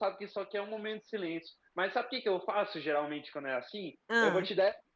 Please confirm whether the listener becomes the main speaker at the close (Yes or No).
No